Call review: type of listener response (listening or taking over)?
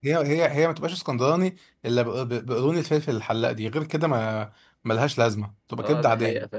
taking over